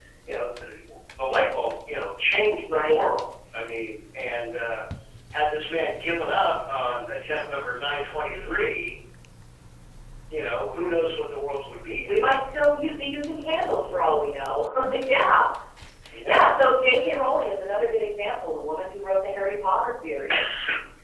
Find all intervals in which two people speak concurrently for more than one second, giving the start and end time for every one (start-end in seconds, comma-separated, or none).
none